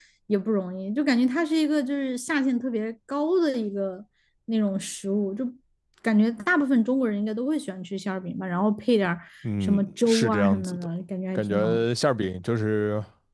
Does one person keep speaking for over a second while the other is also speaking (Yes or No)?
Yes